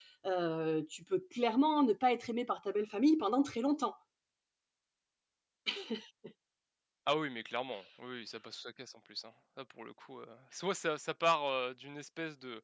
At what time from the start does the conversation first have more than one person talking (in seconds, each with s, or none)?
none